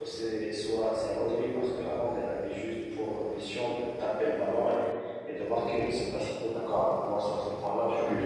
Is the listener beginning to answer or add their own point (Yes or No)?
Yes